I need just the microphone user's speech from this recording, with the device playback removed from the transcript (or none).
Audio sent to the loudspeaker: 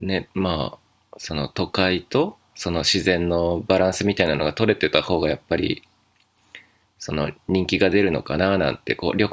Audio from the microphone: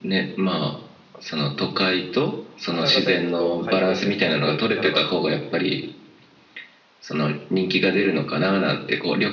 朝方行くと開店で並ばずに食べれる。